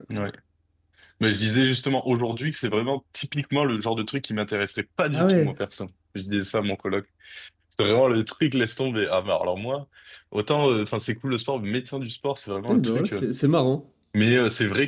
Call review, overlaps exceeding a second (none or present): none